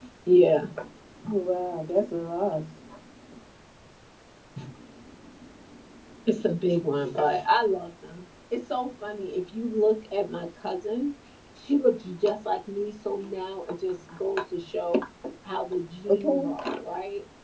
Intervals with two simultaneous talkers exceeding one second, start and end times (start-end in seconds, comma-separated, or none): none